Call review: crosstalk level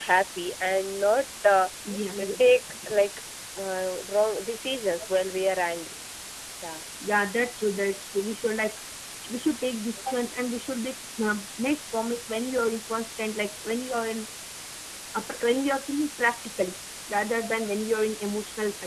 none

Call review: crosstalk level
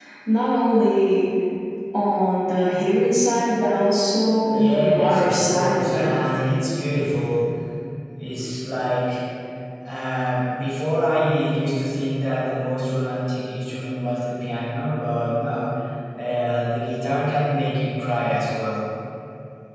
present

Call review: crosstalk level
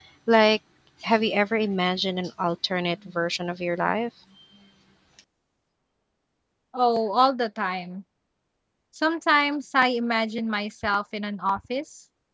none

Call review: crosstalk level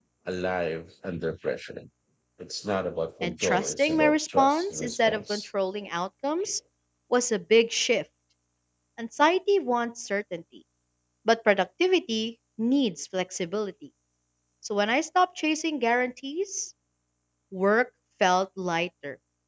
present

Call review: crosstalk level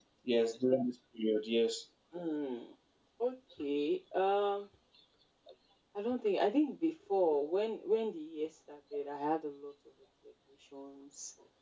none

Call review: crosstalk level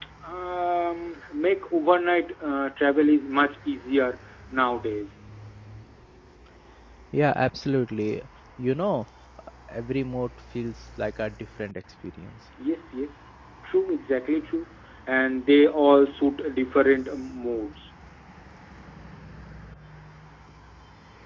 none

